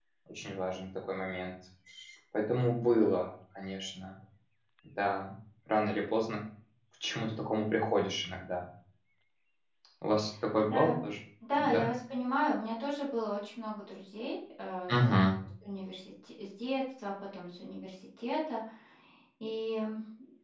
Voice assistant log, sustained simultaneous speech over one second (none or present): none